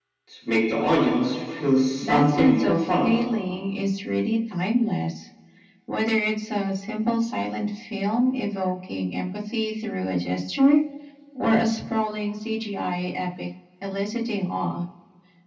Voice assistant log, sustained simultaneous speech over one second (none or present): present